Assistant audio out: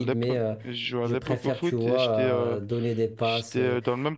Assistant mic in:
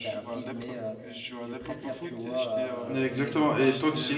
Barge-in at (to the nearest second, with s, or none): 3 s